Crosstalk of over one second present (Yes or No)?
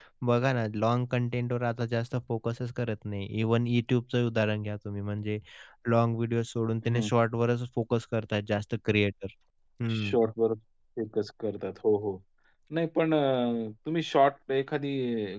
No